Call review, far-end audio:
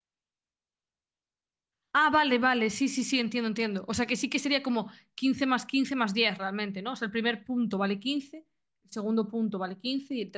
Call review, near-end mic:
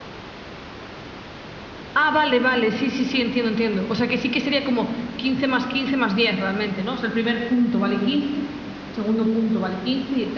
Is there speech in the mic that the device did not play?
No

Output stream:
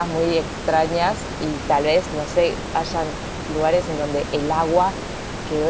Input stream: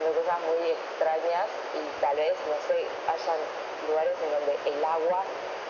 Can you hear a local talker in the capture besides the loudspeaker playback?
No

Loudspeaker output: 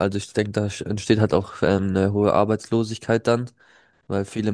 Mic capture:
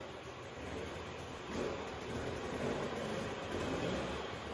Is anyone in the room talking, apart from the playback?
No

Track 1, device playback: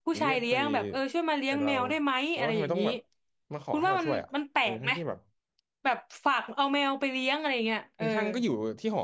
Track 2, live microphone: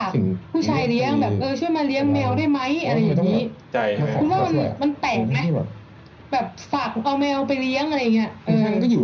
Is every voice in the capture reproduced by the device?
No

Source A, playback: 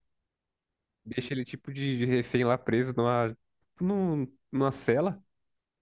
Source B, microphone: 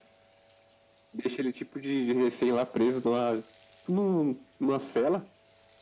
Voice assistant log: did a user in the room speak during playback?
No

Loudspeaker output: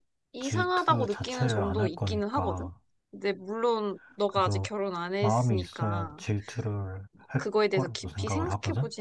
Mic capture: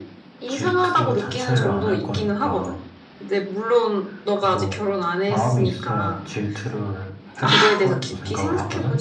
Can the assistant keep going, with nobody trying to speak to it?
No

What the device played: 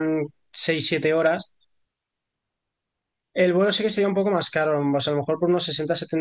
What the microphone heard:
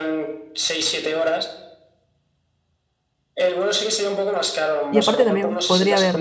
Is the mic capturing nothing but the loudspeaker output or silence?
No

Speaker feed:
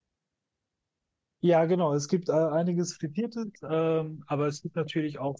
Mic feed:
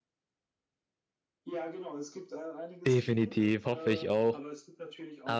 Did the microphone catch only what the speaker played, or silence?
No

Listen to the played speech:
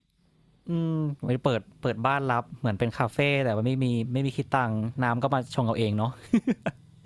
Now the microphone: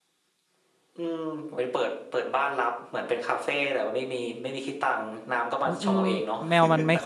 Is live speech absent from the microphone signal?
No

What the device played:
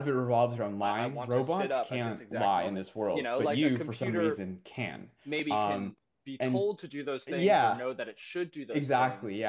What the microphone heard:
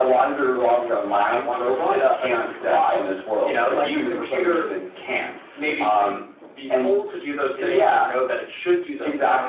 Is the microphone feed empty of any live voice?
Yes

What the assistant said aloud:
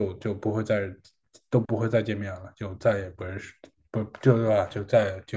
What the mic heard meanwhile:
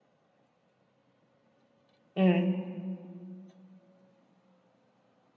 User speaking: Yes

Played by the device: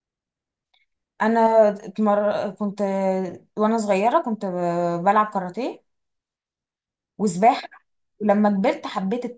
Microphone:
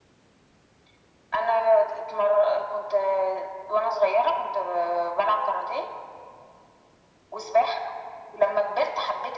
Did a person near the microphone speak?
No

